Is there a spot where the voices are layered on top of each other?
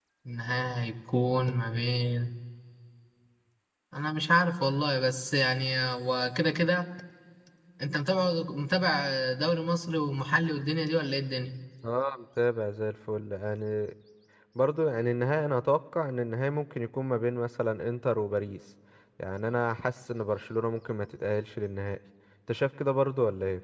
No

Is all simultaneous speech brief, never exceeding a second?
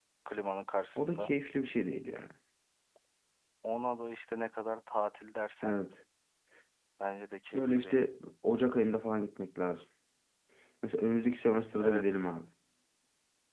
Yes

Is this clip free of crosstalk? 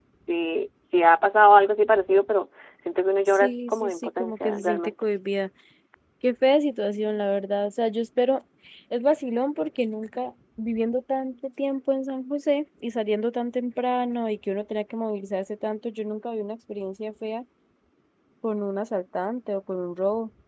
No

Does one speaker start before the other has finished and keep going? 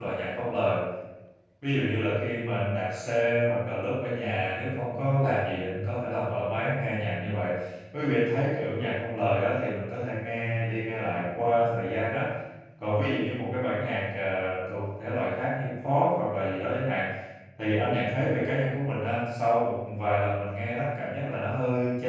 No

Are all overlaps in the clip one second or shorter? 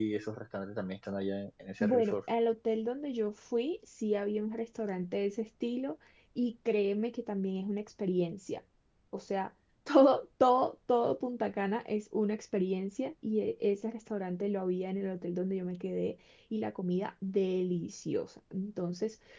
Yes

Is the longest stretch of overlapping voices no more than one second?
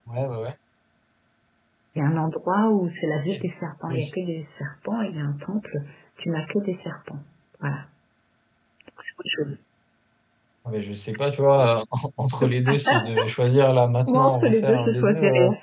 No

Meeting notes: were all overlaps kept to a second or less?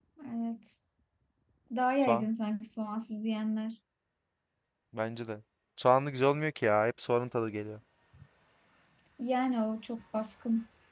Yes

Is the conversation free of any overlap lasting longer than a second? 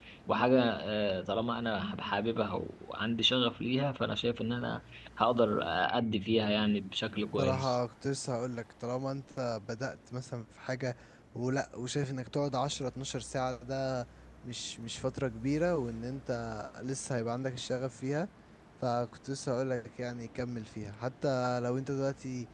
Yes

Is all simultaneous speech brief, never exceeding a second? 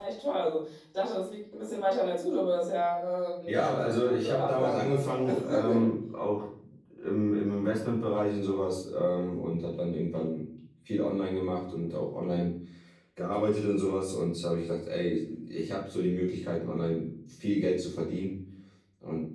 No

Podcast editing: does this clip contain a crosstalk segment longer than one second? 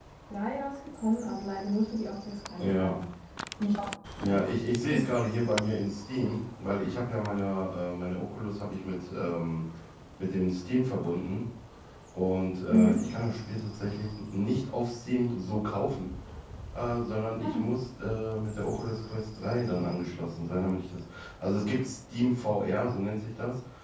No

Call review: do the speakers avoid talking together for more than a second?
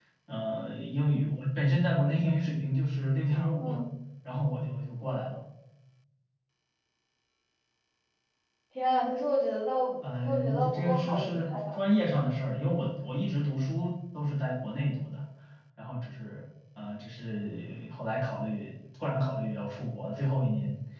No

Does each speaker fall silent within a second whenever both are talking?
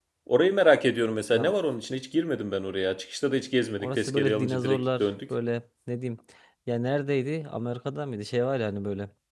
No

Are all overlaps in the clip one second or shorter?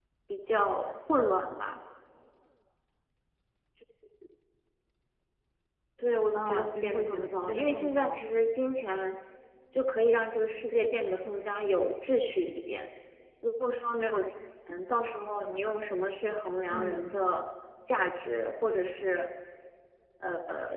No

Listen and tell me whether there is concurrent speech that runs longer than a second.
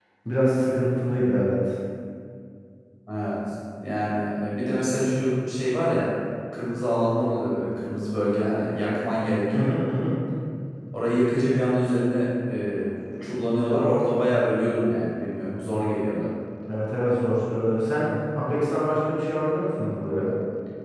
No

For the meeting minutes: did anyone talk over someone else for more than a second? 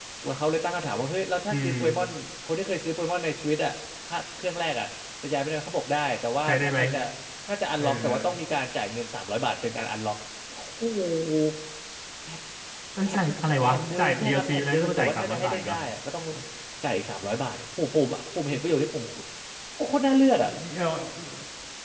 Yes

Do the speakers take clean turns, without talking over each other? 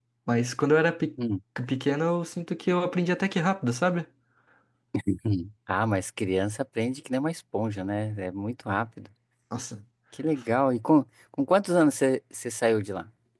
Yes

